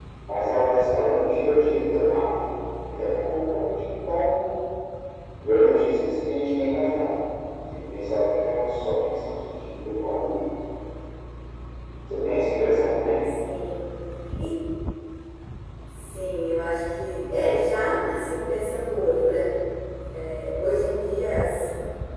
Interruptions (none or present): none